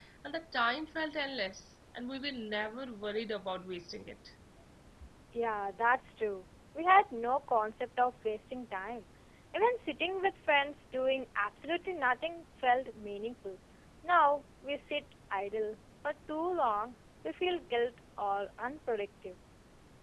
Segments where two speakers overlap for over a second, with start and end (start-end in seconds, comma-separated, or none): none